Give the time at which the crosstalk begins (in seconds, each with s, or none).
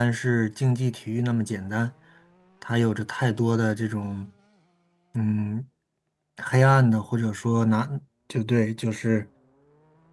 none